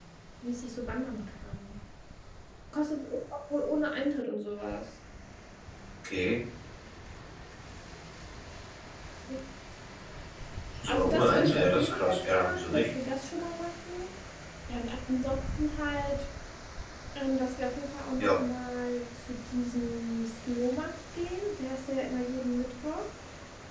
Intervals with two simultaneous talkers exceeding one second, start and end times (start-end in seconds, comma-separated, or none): 10.9-12.8